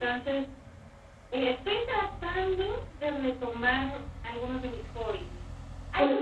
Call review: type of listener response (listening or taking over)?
listening